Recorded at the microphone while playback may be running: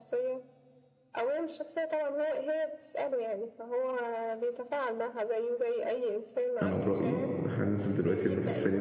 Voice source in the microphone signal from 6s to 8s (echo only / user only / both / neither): both